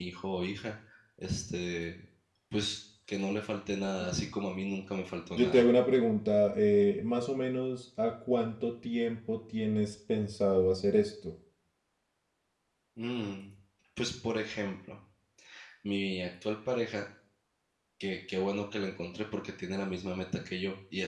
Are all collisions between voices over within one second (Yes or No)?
Yes